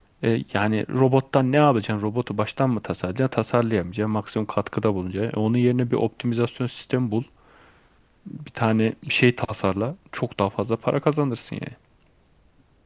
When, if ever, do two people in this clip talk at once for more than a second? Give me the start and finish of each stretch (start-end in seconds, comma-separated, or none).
none